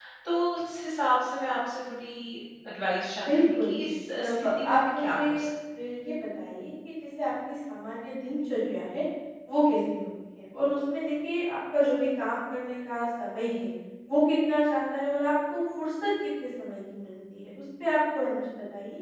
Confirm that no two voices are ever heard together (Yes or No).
No